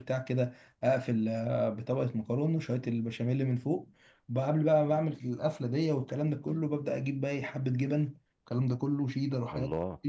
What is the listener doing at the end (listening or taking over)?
listening